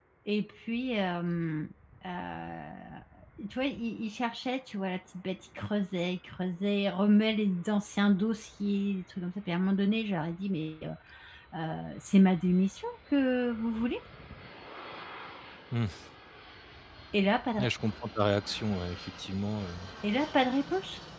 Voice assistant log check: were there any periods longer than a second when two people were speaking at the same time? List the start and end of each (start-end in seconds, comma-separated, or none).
none